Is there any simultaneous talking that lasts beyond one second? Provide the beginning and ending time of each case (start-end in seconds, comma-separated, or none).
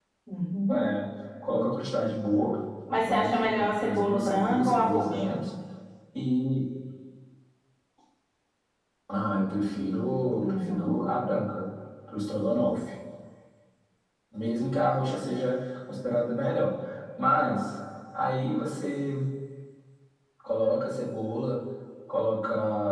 3.0-5.4